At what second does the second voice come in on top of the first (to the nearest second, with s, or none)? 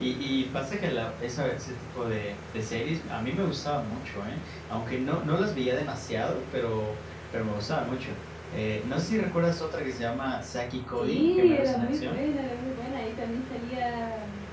11 s